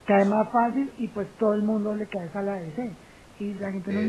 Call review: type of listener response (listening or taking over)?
listening